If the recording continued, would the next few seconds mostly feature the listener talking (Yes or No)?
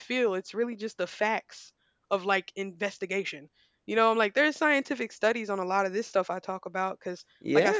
Yes